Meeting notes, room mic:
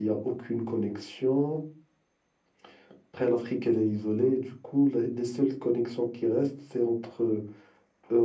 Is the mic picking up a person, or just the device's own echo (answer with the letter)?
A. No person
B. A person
A